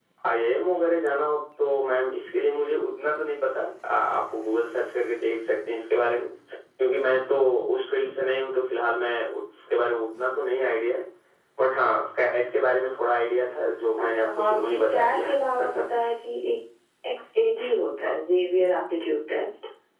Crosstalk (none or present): present